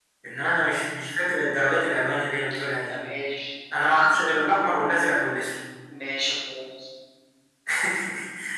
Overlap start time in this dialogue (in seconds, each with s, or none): none